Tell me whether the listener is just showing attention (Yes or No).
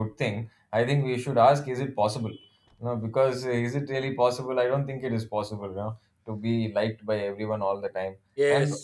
Yes